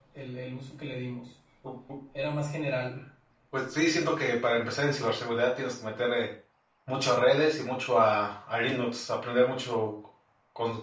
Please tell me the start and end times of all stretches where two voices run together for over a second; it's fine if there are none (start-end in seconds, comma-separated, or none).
none